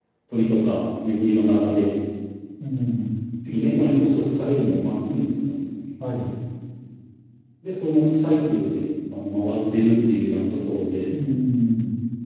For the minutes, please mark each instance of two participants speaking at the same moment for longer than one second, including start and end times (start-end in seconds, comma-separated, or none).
none